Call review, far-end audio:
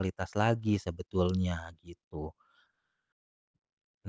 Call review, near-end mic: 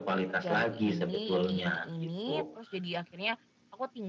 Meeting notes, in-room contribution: present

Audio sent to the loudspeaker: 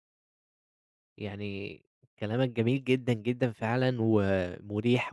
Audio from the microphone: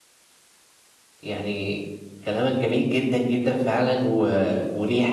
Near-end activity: none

